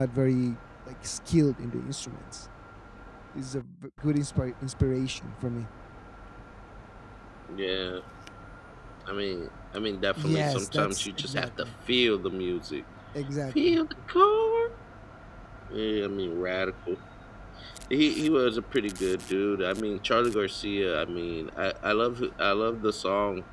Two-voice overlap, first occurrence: 10.2 s

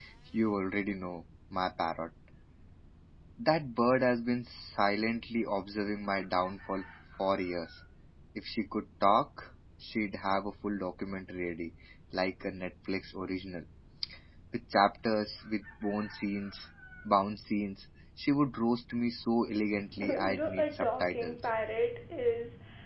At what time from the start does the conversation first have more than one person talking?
20.0 s

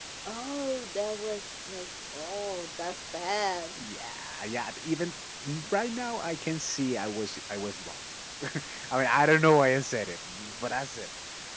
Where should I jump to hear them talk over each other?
none

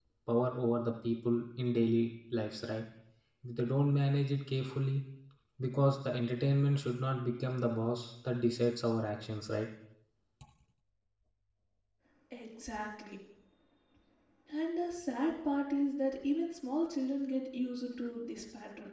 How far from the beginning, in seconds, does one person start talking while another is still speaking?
none

